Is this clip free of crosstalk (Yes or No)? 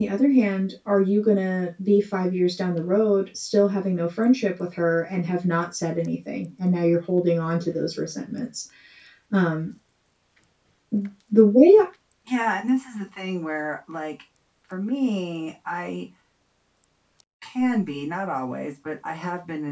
Yes